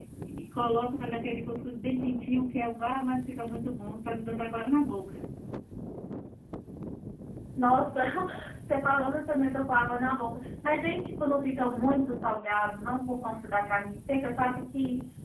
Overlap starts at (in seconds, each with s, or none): none